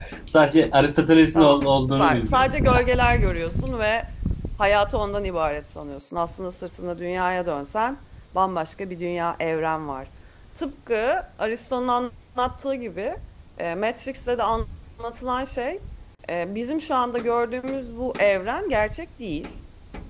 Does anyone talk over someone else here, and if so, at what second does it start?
1.4 s

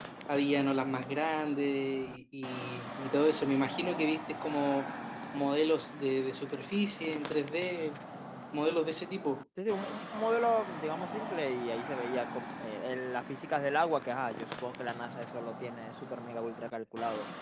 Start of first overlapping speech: none

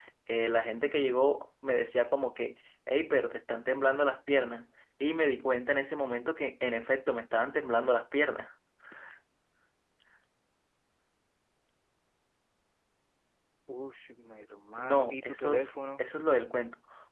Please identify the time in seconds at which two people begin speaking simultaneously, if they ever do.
14.8 s

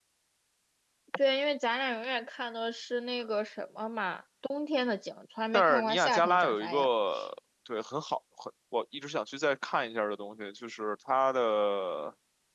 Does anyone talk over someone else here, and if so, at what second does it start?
5.5 s

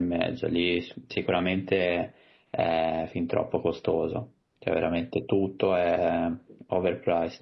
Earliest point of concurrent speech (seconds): none

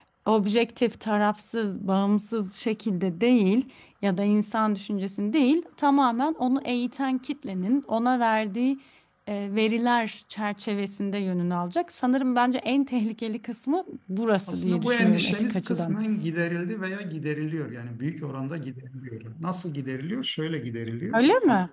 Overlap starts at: 14.5 s

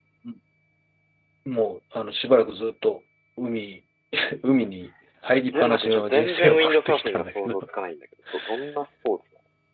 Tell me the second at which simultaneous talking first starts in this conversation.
5.6 s

